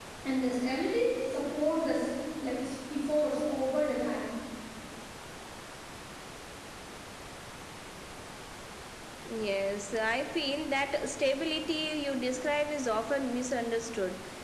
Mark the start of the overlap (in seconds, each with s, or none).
none